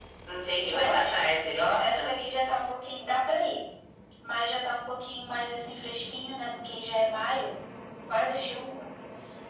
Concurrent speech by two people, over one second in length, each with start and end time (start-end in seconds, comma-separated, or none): 0.6-2.1